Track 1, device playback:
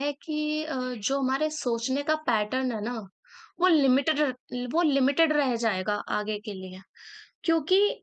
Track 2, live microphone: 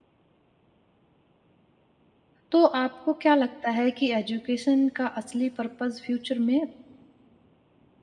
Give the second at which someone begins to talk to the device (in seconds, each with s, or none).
2.5 s